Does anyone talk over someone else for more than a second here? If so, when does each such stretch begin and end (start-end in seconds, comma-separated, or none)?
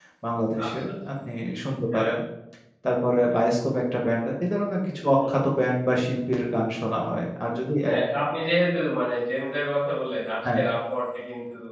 none